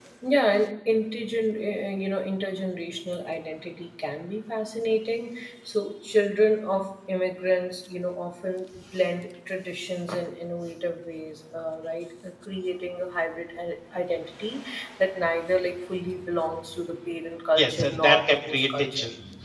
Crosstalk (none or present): present